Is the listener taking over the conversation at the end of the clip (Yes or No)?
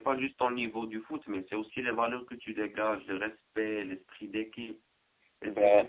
No